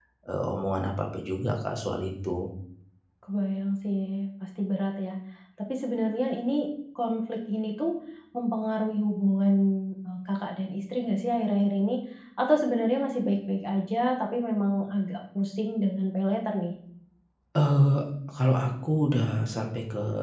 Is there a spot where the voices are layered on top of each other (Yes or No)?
No